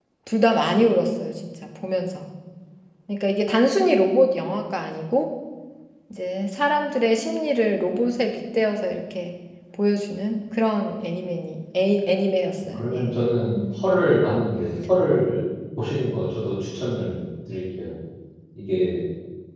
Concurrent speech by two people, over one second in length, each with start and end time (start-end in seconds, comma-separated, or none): none